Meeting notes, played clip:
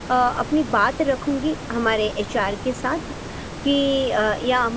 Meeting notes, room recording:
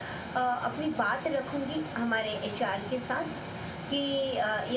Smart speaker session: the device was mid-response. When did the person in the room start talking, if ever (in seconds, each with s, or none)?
none